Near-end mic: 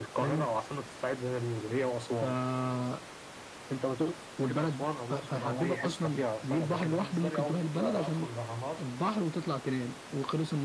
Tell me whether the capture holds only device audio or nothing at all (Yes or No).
No